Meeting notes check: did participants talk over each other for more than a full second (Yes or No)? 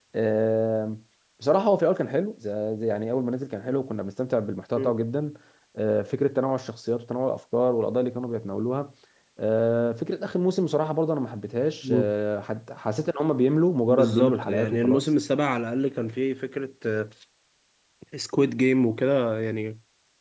Yes